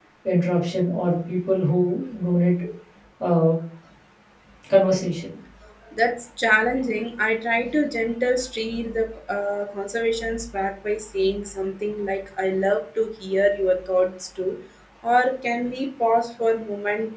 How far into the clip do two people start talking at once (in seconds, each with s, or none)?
none